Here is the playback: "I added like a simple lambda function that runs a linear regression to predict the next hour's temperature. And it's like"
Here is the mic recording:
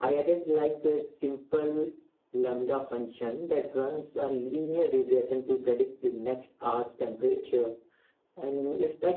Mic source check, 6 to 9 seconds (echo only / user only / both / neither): echo only